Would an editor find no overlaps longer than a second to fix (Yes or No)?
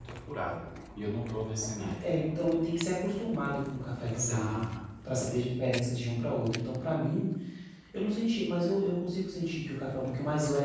Yes